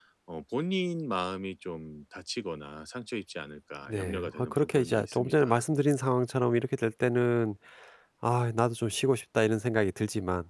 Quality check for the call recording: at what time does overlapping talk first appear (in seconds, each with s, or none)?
3.9 s